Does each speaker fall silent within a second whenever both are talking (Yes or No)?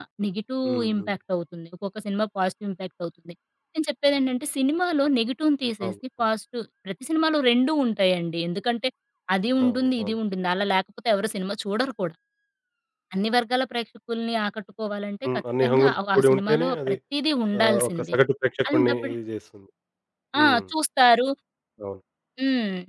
No